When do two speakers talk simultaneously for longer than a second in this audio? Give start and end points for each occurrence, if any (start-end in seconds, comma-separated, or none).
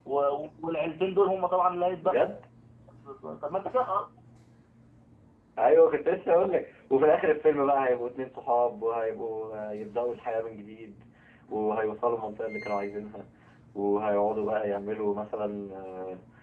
none